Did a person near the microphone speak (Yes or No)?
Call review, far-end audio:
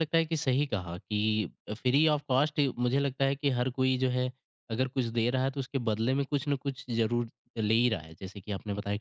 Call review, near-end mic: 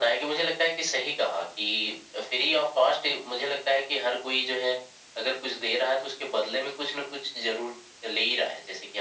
No